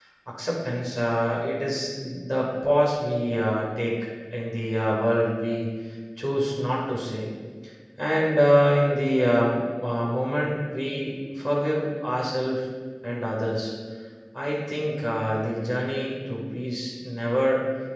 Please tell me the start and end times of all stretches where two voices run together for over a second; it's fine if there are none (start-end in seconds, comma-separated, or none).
none